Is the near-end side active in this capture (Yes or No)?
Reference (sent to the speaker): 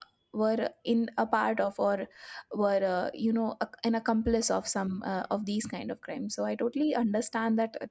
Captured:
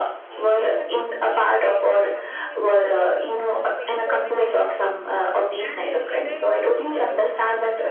Yes